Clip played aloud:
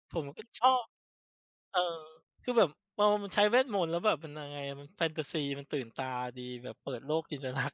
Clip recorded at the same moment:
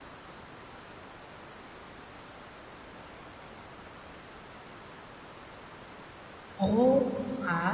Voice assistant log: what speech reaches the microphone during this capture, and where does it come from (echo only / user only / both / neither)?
user only